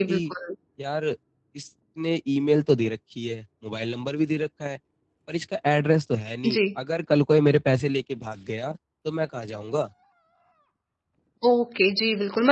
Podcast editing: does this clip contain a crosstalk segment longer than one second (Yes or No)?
No